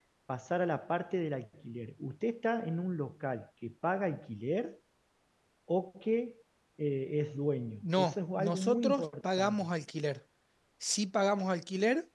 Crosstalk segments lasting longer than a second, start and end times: 7.8-9.7

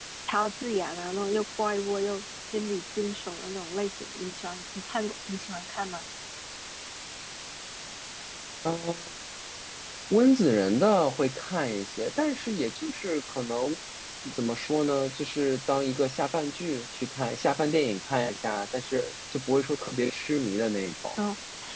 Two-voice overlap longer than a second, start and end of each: none

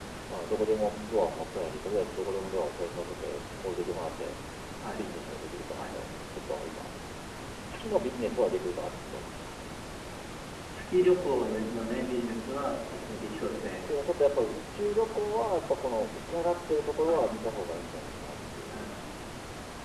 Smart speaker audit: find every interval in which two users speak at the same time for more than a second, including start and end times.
none

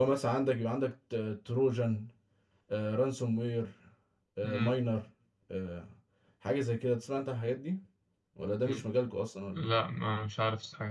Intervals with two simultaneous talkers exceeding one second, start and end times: none

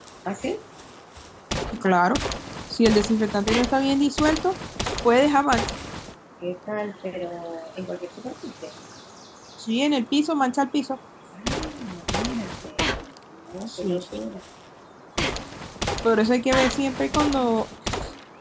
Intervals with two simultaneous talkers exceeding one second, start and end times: none

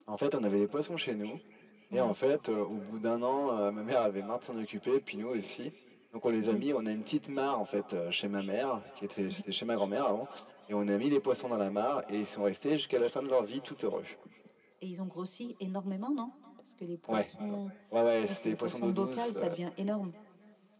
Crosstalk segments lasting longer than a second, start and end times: 18.3-19.5

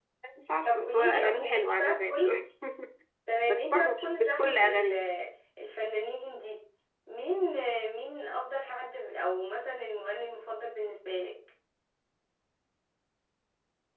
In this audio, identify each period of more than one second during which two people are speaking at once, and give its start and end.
0.7-2.4, 3.5-4.9

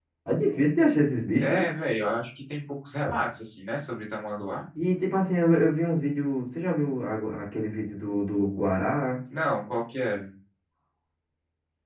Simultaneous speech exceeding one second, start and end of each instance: none

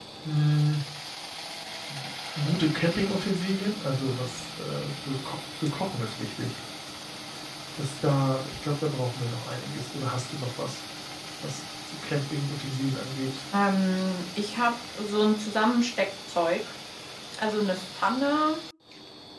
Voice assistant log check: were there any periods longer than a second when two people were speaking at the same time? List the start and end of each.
none

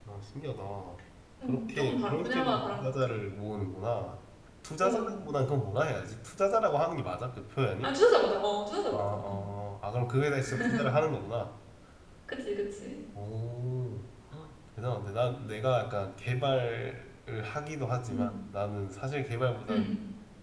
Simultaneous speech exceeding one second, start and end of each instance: 1.4-3.1

